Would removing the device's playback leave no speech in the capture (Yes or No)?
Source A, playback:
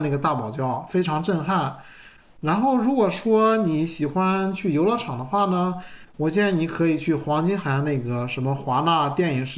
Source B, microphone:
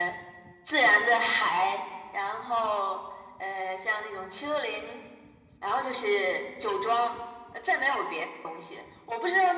No